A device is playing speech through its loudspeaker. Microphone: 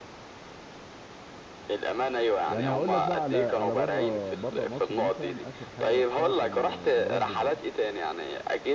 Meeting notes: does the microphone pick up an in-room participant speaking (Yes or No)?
Yes